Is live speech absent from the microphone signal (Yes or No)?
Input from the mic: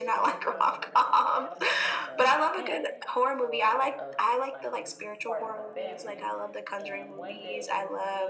No